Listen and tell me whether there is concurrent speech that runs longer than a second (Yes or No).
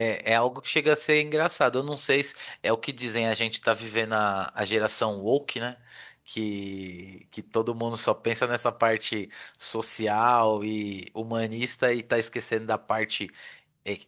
No